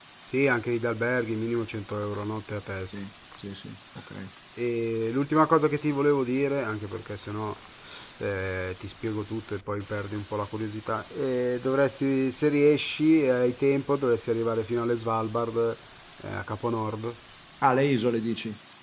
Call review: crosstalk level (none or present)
none